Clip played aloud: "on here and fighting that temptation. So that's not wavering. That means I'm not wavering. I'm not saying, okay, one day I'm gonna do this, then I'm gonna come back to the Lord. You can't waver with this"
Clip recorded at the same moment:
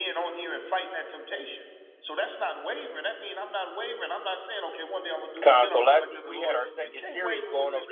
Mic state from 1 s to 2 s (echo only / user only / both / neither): echo only